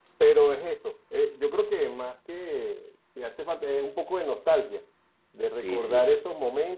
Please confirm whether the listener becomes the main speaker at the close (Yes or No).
No